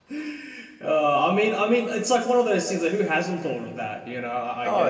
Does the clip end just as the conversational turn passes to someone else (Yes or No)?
Yes